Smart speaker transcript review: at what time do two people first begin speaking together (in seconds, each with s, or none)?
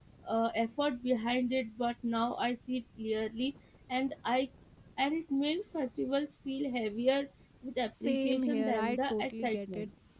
7.9 s